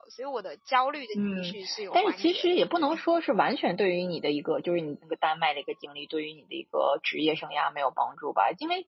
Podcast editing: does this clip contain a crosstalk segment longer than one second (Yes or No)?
Yes